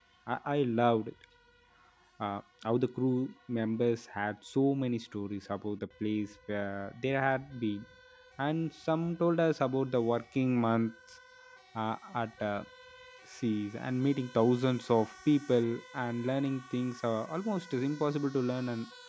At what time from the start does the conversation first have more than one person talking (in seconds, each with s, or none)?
none